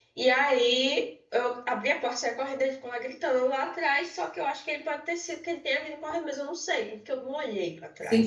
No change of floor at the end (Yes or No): No